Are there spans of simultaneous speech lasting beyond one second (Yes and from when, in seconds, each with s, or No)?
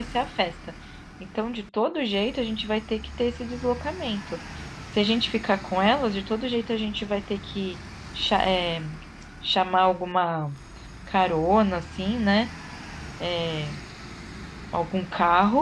No